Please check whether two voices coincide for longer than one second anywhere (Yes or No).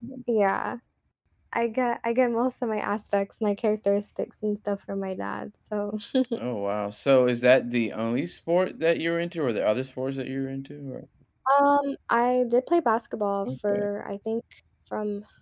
No